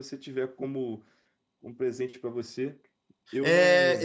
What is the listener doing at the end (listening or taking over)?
taking over